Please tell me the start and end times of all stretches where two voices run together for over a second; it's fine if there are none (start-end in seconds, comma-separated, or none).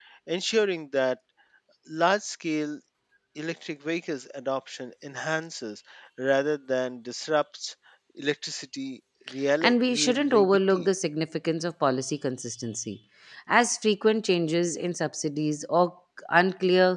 9.6-10.9